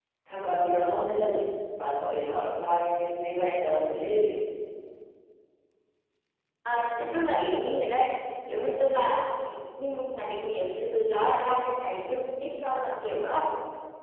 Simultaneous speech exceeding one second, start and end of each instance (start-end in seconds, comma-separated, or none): none